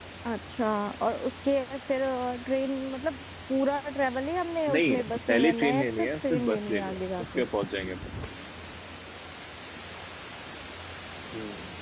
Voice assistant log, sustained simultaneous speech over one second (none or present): present